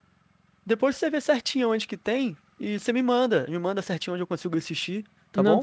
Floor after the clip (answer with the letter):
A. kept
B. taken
B